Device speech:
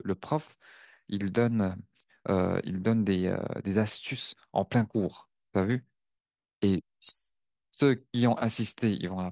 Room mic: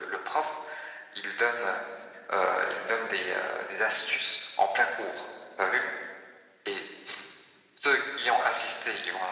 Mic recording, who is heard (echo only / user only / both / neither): echo only